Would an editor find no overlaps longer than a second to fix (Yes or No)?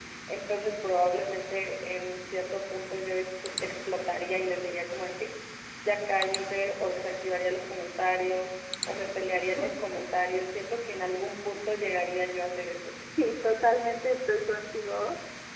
Yes